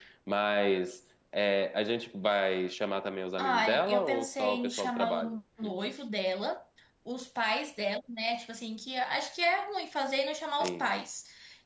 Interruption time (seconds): 3 s

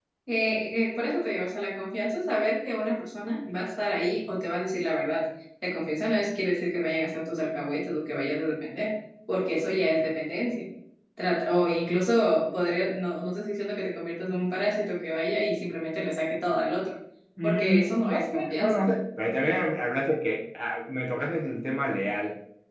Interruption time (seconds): 17 s

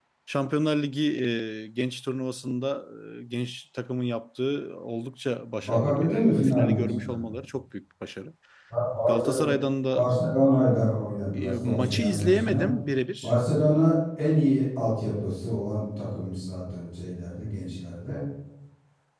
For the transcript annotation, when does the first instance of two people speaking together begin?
6 s

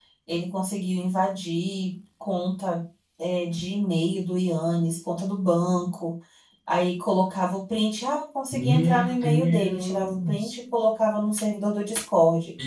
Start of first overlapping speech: 9 s

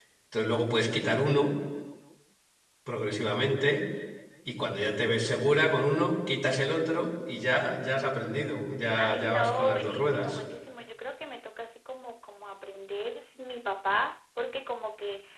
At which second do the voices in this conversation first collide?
9 s

